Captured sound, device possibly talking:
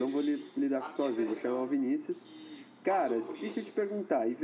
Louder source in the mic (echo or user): user